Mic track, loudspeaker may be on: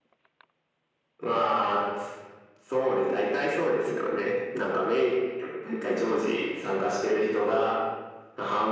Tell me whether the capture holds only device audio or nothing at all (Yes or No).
Yes